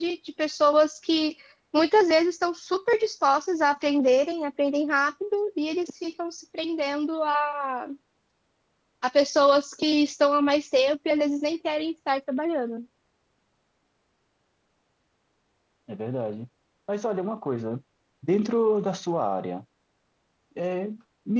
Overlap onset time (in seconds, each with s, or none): none